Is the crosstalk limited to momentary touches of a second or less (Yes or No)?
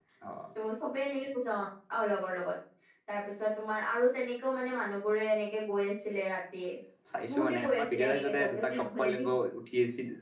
No